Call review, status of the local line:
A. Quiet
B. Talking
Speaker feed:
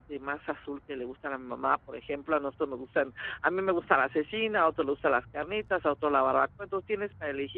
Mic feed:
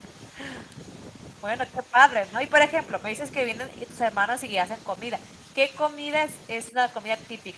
B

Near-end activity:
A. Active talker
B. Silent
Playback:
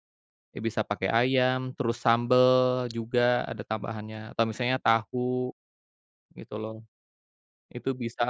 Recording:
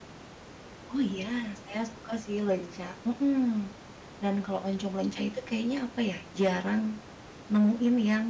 A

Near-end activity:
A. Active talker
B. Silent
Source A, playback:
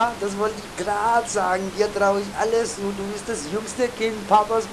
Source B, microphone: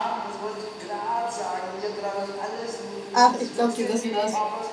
A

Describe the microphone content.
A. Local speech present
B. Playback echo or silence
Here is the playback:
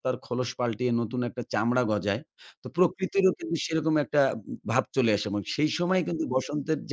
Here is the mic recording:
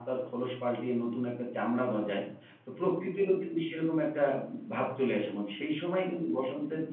B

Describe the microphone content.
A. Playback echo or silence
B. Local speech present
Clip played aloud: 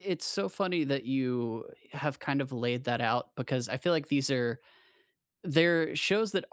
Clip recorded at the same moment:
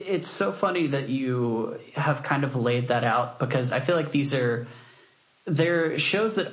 A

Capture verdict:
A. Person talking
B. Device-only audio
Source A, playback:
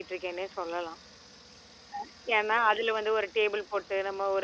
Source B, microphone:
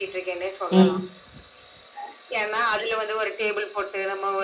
A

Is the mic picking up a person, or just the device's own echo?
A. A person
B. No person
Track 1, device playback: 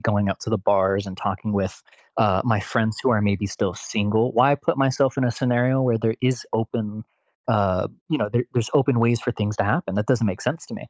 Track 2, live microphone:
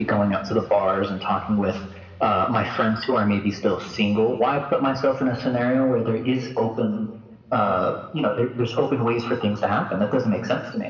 B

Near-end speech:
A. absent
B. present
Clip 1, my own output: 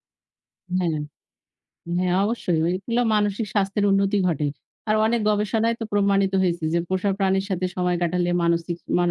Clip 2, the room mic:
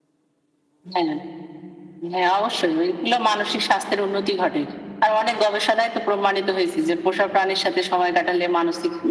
A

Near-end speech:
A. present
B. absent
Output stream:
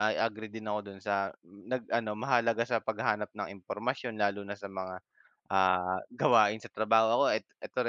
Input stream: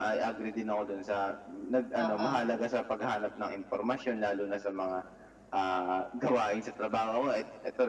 A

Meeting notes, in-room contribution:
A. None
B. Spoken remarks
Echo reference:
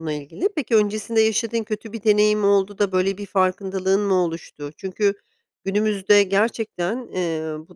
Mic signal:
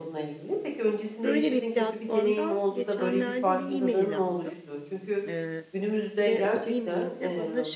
B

